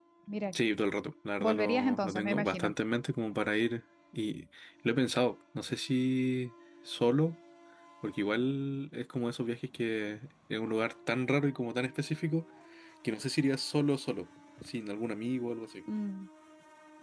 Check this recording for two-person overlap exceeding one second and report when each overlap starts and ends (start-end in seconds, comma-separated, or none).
1.4-2.7